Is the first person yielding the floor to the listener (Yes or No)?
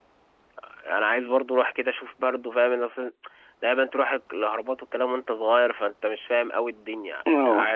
Yes